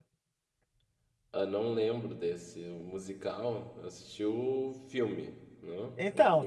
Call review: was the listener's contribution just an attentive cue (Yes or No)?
No